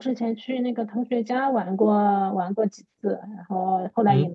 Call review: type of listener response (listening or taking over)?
taking over